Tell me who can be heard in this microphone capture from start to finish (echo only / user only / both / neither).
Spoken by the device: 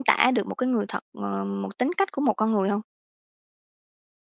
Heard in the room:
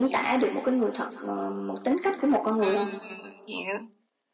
both